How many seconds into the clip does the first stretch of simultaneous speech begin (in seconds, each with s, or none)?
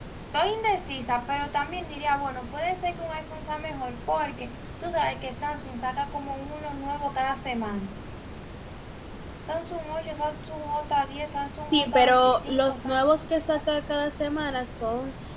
11.7 s